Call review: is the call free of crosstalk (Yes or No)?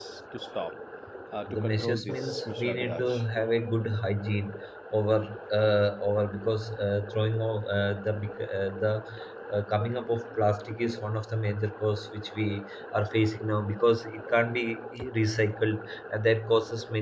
No